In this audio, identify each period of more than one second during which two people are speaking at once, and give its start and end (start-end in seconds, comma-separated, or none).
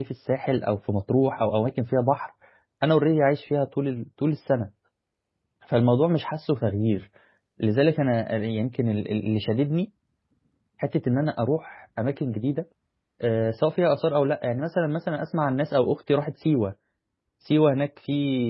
none